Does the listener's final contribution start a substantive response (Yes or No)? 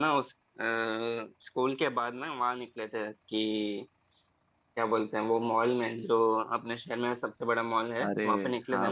Yes